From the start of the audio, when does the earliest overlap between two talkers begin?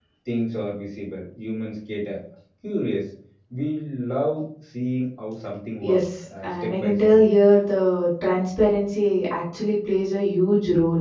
5.8 s

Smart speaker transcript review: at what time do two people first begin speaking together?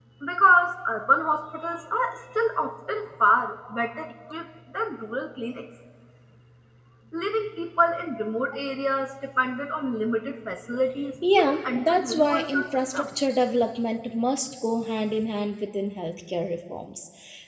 11.2 s

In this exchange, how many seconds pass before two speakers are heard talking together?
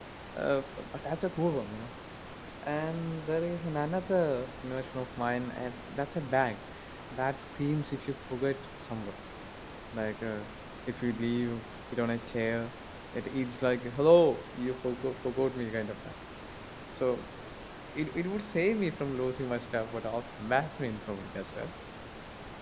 none

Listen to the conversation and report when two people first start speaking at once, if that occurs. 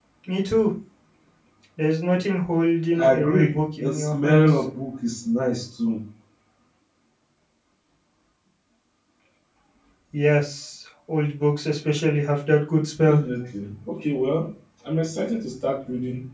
3.0 s

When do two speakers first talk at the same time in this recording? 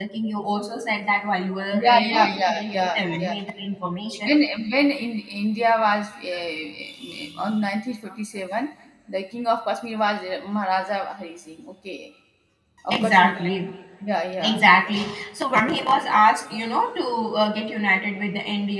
1.8 s

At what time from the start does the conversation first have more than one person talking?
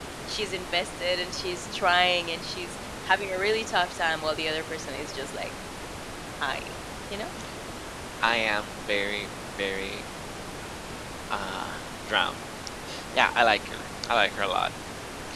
none

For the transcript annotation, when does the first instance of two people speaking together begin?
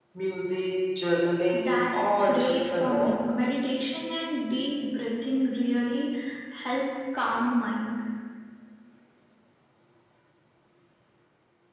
1.5 s

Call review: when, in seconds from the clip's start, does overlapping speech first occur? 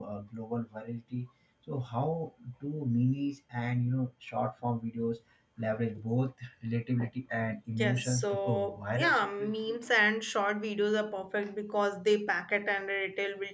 7.7 s

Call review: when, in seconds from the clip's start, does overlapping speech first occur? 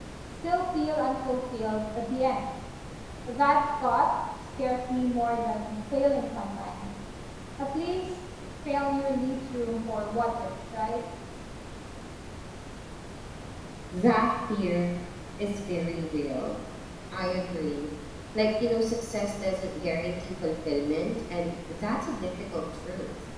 none

